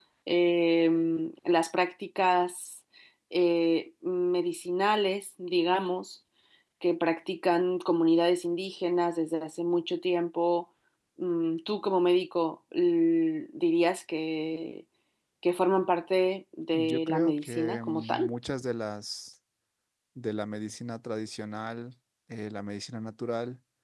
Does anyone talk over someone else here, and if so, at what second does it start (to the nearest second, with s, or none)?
17 s